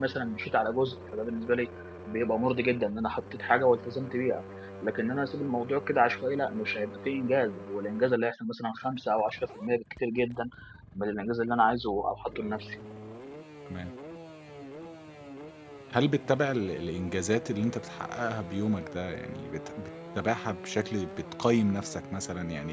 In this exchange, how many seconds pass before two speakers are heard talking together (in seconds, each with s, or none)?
none